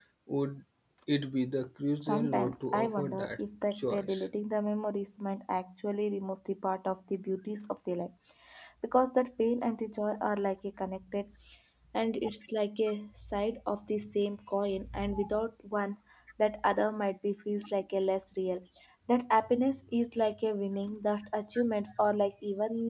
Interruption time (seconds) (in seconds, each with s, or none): 2.0 s